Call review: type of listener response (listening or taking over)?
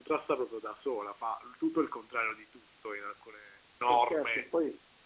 taking over